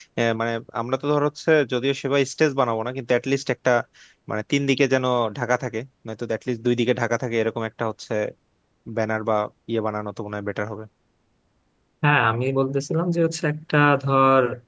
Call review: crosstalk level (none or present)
none